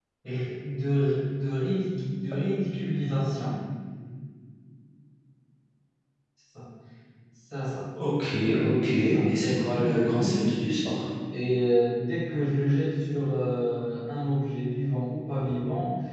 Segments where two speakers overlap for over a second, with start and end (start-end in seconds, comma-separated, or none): 8.9-10.5